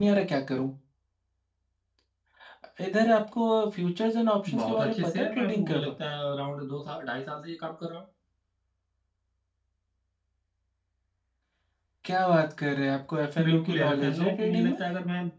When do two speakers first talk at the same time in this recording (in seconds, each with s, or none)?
4.5 s